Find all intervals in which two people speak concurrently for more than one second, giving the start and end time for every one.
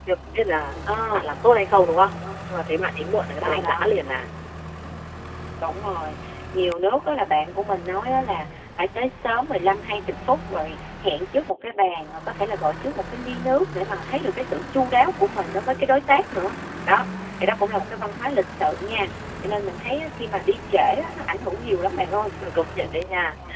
none

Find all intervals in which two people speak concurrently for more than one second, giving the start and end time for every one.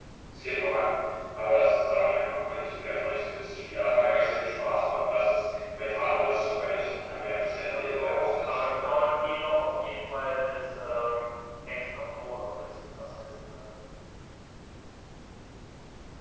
6.9-8.7

